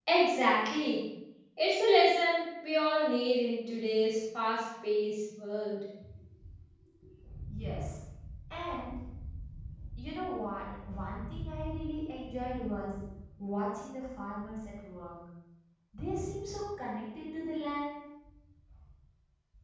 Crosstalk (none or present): none